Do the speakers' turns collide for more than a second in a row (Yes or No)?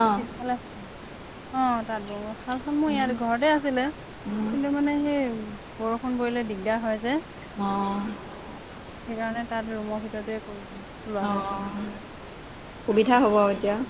No